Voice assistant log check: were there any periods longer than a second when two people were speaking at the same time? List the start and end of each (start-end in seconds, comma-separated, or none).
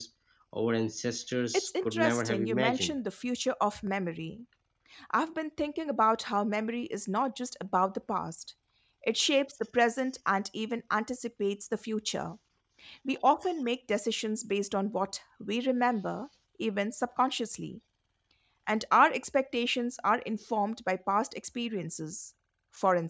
1.5-2.9